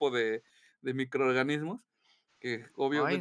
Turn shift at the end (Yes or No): No